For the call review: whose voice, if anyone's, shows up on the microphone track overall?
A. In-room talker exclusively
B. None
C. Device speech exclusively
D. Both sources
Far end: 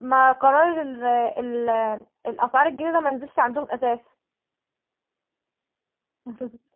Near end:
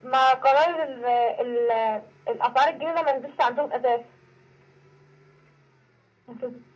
C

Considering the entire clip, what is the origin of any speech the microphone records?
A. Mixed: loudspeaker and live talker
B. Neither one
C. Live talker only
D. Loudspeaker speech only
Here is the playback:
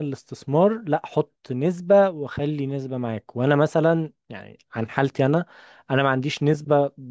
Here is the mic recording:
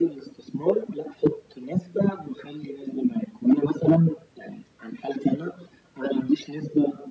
D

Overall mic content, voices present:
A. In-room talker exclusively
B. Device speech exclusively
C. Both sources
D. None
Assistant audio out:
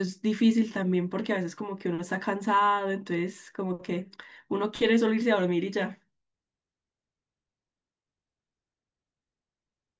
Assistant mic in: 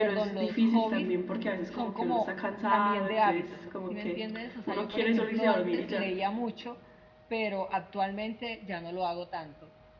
C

